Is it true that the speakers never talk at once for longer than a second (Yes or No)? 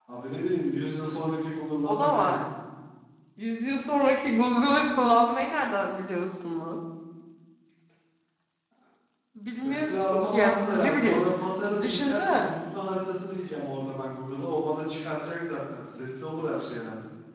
No